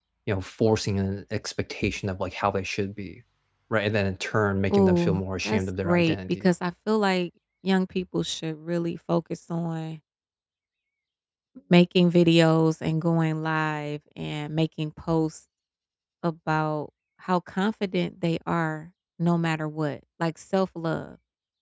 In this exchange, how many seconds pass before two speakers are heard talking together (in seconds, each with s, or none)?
4.7 s